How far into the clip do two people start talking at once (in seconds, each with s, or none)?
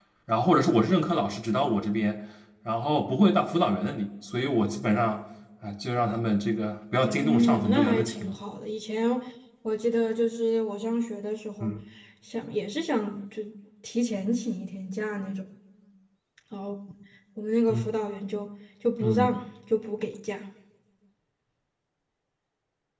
7.0 s